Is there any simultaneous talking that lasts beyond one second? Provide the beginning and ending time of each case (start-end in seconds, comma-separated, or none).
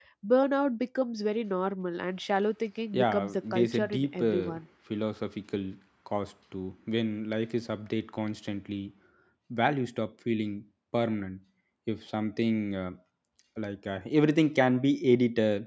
2.9-4.6